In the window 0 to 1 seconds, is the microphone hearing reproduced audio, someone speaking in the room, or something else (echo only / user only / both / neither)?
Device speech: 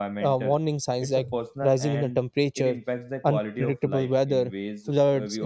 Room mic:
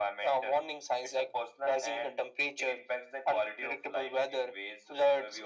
echo only